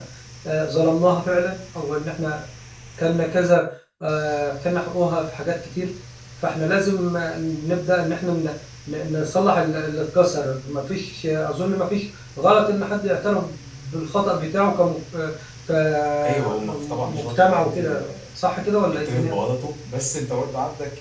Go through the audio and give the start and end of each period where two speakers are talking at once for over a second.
16.2-18.1

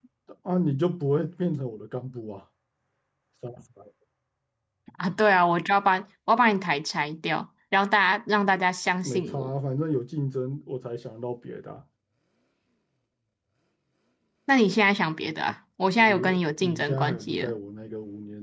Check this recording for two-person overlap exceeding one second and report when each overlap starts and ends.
16.0-17.5

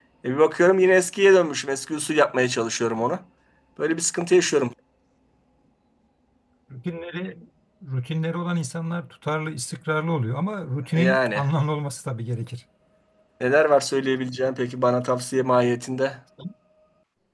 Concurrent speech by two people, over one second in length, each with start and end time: none

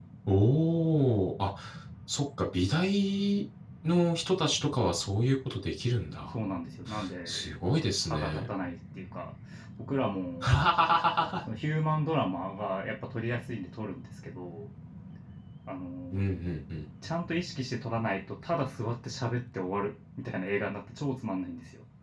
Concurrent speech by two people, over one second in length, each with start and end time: none

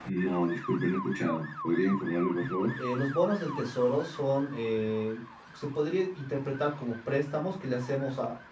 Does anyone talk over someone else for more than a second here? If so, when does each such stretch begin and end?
none

